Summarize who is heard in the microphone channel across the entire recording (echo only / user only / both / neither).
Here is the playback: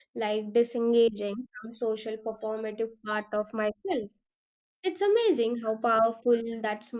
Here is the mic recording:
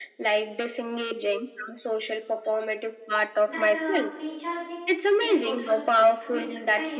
both